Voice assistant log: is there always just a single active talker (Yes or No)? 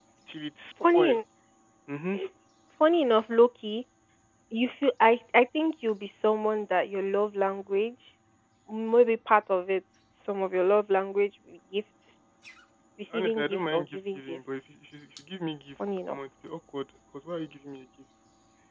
No